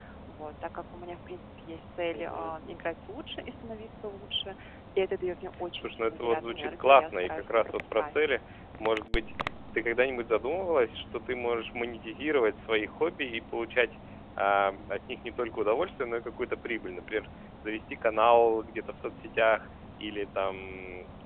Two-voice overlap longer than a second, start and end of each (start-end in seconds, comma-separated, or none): 5.8-8.1